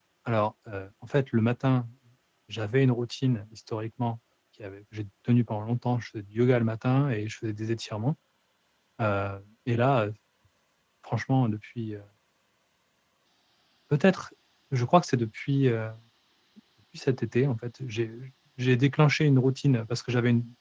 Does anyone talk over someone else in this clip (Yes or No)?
No